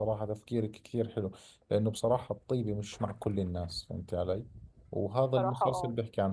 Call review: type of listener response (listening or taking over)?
listening